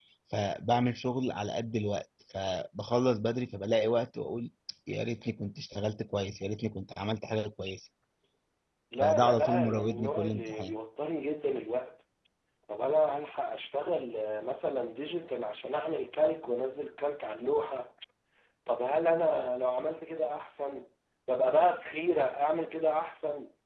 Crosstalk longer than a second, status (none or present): present